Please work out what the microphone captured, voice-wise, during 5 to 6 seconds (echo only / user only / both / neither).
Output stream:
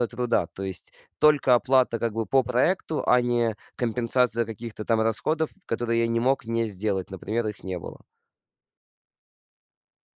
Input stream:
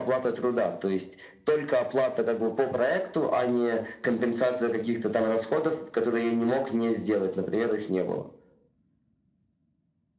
echo only